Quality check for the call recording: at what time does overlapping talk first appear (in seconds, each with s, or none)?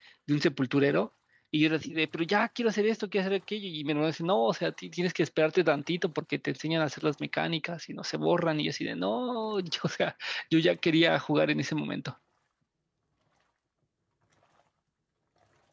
none